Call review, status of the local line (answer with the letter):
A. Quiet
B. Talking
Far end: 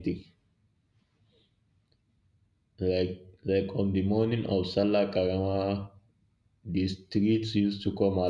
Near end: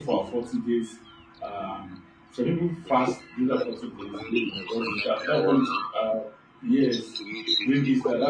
B